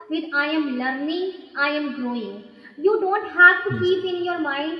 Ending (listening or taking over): listening